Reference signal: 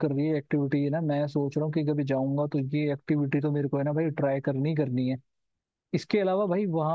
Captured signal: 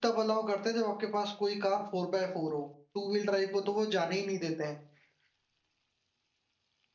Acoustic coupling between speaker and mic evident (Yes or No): No